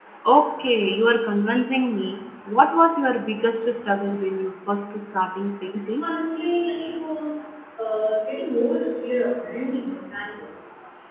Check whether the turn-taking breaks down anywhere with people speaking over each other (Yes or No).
No